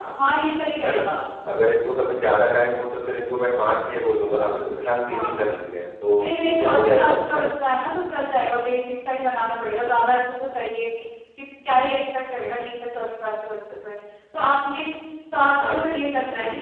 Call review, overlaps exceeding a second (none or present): present